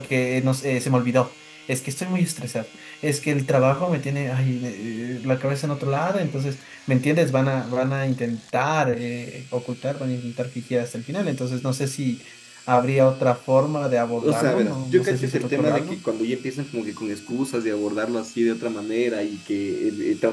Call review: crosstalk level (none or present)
present